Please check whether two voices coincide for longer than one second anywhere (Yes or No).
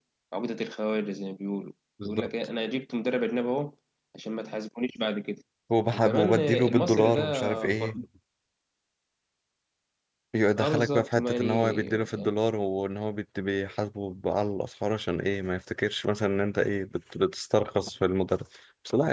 Yes